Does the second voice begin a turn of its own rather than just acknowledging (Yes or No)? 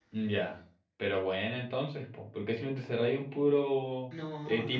No